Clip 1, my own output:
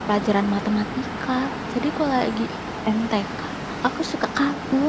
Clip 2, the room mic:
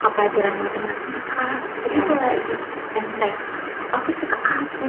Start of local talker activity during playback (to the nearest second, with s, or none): 2 s